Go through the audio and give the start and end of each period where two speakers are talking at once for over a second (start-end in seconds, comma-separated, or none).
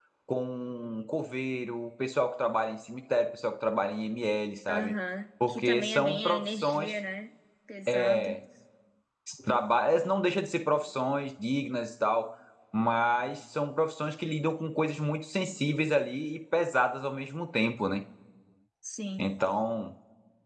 5.5-6.9